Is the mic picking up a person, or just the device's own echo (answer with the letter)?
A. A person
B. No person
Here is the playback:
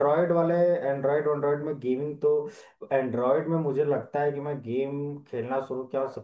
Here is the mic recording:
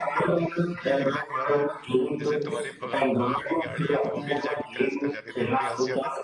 A